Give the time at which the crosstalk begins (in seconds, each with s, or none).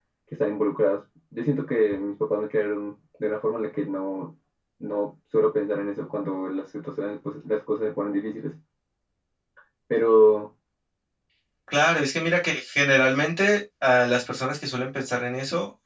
none